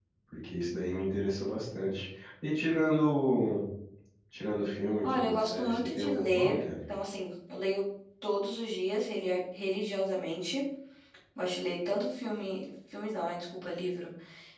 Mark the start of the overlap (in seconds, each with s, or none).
5.0 s